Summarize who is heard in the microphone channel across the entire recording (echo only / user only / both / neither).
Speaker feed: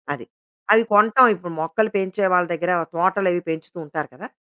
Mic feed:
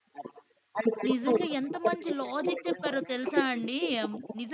both